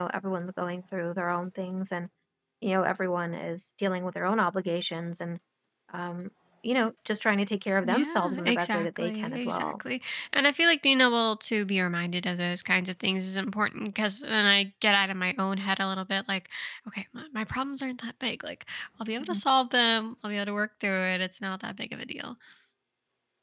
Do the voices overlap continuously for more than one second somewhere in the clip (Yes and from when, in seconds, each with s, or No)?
Yes, from 7.8 s